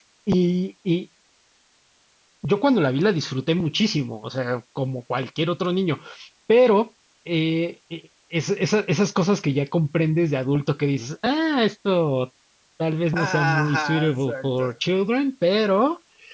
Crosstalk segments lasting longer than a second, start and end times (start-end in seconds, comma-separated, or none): 13.2-14.6